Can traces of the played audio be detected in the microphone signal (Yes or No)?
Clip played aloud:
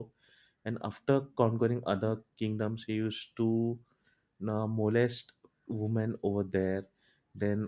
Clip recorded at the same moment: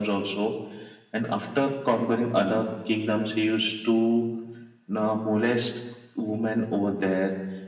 Yes